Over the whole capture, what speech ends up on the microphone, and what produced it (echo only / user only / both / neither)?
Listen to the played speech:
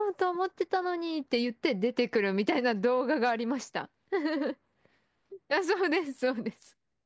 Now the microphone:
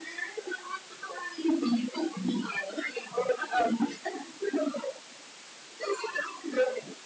echo only